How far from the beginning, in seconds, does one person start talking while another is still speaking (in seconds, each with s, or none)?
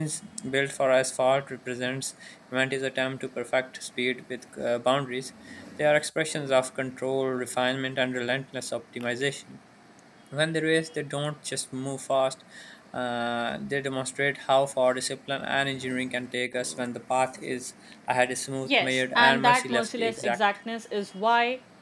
18.6 s